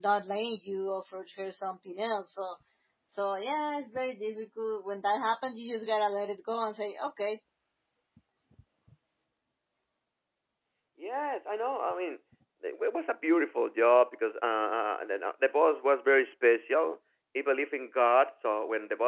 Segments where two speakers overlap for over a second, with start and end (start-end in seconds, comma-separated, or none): none